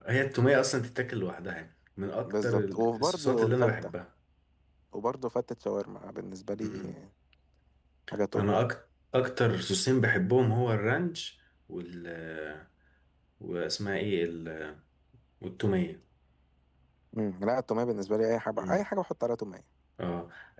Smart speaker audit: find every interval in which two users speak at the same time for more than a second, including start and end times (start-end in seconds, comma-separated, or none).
2.3-3.9